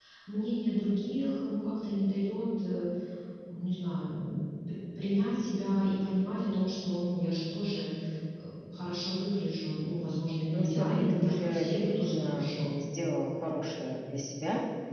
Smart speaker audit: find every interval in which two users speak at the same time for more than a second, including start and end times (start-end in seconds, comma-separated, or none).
10.5-12.7